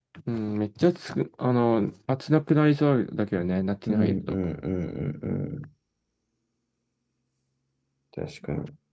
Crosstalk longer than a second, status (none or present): none